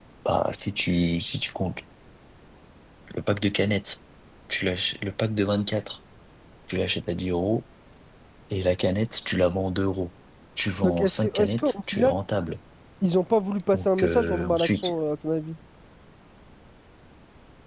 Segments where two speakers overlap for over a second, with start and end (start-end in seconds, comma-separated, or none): 10.8-12.1, 13.7-14.9